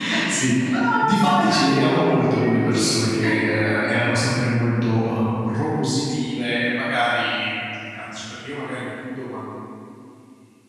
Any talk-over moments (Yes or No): Yes